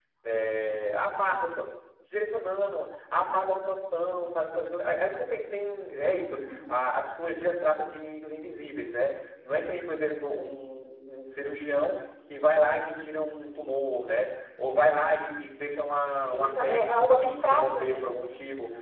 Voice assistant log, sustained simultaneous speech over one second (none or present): present